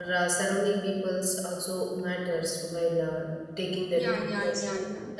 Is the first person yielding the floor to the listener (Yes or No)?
Yes